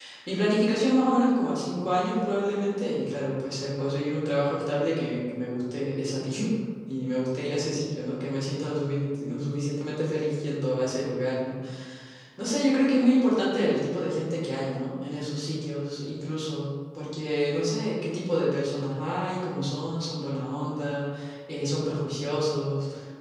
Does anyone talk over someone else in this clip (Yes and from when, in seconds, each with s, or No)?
No